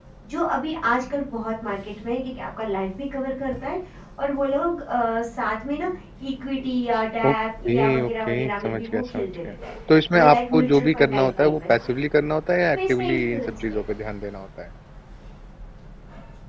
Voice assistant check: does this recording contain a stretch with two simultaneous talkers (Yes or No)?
Yes